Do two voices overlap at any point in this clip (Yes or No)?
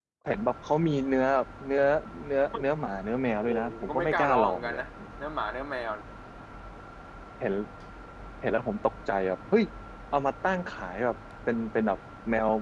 Yes